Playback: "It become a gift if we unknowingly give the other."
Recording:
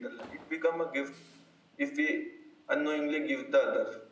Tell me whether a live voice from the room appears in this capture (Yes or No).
No